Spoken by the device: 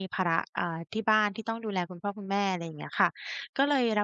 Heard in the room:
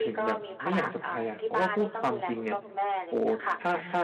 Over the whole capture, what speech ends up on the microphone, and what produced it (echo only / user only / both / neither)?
both